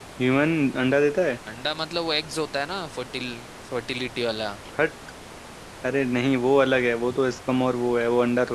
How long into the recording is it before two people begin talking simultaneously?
none

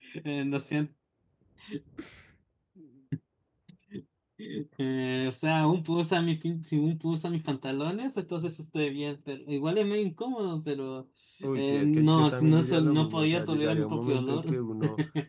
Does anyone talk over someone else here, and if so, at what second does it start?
11 s

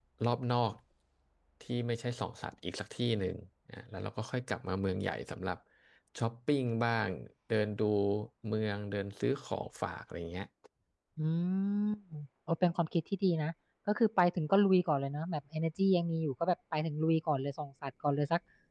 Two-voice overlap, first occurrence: none

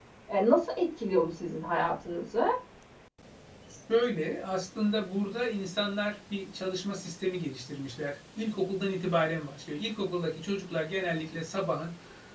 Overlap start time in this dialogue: none

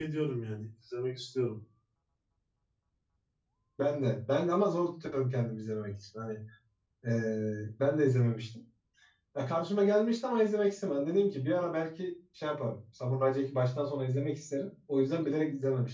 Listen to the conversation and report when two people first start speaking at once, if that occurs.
none

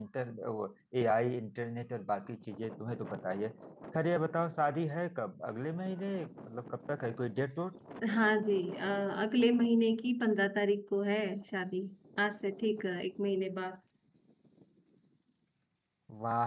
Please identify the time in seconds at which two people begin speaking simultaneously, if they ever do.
none

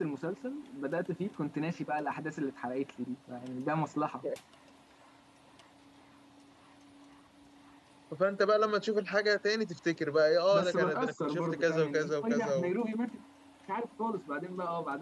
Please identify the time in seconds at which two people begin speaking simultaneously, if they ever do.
11 s

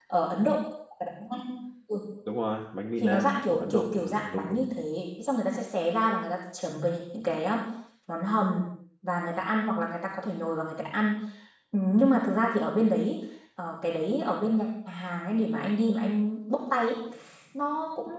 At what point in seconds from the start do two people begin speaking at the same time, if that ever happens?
3 s

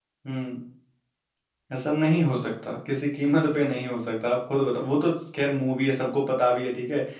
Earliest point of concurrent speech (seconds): none

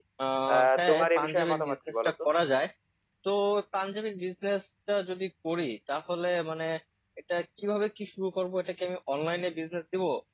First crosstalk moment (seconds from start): 1 s

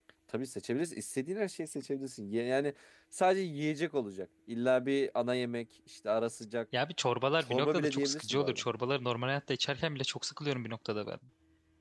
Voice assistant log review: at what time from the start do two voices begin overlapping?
7 s

